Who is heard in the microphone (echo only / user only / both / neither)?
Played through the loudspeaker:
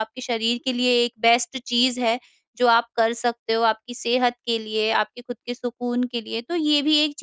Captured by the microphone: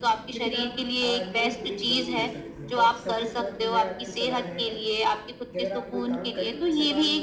both